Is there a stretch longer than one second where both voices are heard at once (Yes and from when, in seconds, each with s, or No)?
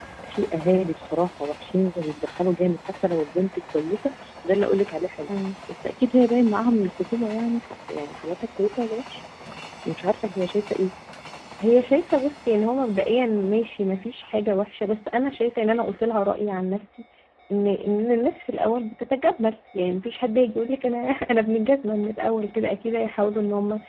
No